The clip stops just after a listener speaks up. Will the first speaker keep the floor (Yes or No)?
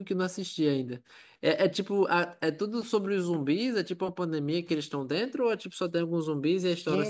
No